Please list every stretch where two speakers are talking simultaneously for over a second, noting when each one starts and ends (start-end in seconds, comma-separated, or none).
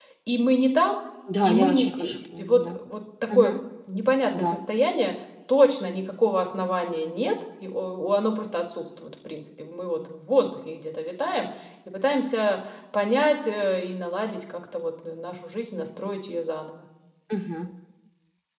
1.4-2.8